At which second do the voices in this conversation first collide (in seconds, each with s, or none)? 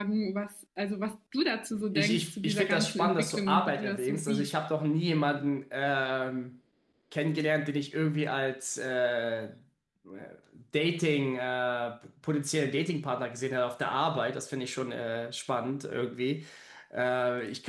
1.9 s